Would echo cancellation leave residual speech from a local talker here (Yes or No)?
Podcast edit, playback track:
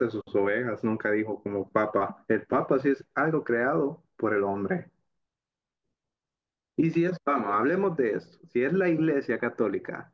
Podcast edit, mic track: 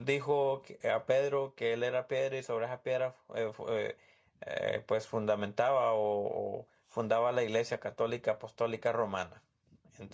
Yes